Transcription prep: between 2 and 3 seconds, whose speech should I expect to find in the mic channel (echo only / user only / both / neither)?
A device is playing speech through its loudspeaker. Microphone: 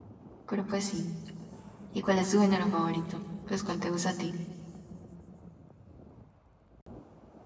user only